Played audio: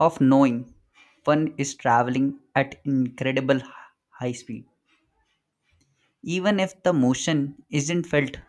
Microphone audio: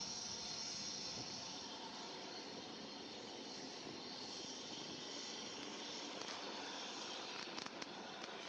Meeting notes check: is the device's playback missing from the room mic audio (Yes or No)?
Yes